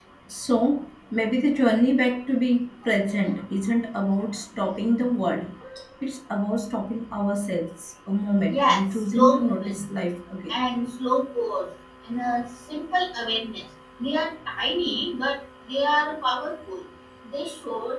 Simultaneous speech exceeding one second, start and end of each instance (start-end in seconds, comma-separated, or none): 8.5-9.8